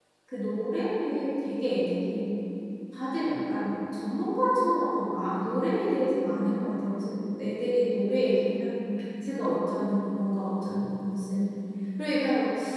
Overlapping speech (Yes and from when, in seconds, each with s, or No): No